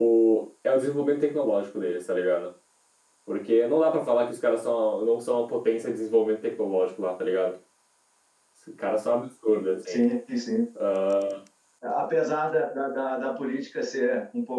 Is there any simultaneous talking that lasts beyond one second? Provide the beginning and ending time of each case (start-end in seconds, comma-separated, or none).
none